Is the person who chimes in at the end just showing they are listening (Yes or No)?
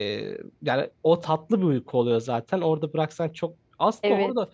Yes